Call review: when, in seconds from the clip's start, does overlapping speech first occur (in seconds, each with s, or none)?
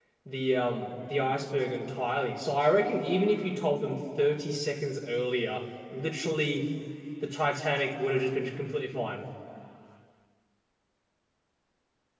none